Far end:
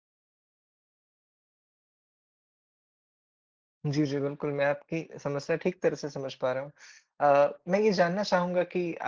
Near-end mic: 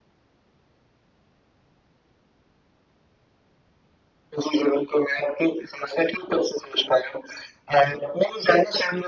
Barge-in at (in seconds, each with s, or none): none